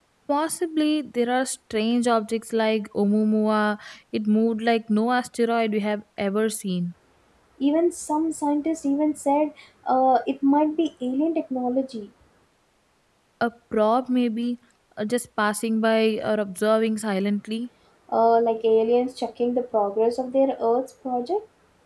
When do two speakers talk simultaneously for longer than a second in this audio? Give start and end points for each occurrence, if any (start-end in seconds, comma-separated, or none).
none